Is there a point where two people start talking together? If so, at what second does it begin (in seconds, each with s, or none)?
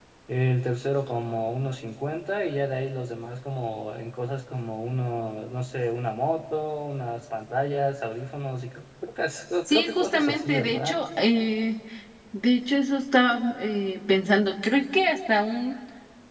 9.7 s